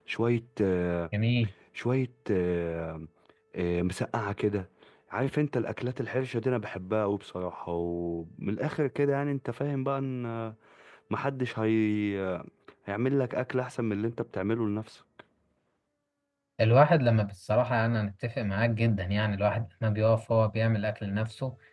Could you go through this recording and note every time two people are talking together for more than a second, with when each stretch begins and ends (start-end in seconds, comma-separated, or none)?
none